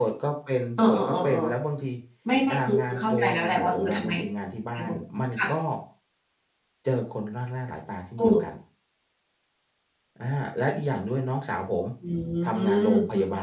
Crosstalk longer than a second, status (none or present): present